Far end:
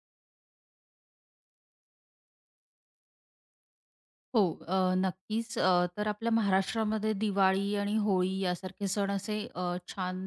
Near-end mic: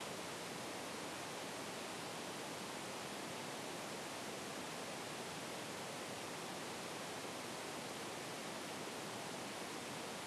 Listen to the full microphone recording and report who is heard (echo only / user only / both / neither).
neither